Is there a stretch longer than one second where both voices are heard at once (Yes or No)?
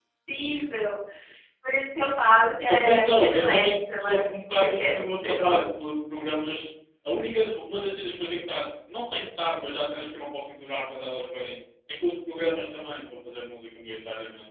Yes